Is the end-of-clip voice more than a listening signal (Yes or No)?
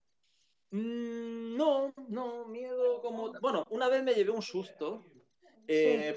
No